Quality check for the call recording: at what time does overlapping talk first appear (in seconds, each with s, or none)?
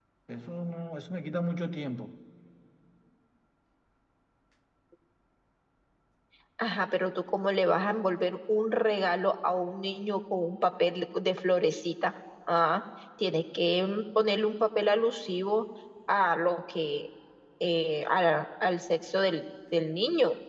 none